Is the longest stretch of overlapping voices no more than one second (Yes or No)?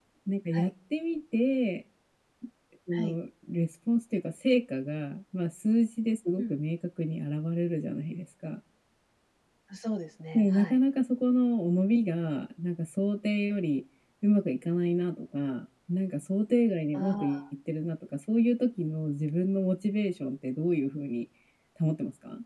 Yes